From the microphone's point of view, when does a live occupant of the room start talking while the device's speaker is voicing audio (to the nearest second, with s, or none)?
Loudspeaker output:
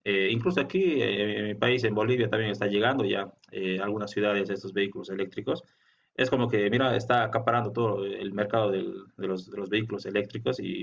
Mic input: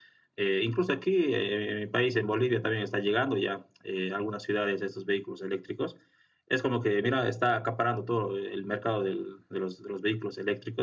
none